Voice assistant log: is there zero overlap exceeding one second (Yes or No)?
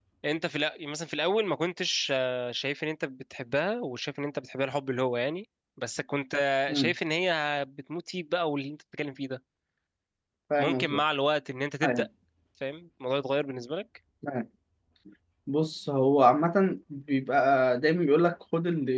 Yes